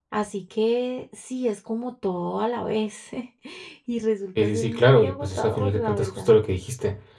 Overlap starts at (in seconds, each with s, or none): 4.4 s